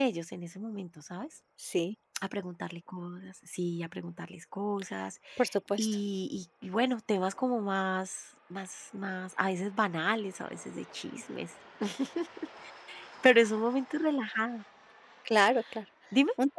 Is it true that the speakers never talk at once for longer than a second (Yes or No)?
Yes